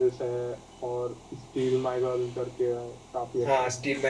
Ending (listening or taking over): taking over